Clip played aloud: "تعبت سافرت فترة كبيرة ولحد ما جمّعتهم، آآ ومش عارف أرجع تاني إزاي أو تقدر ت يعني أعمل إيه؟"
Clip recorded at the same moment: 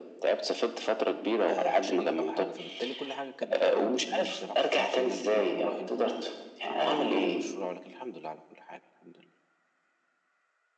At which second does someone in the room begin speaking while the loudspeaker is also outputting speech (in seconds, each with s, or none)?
1.5 s